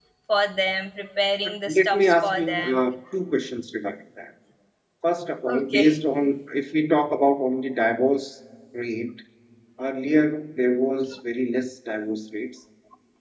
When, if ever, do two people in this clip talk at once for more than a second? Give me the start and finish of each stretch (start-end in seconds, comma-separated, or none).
1.4-2.8